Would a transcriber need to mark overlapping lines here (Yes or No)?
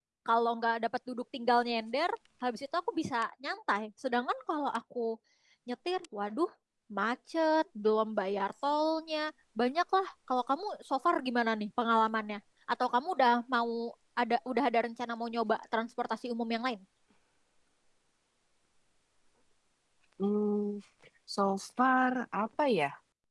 No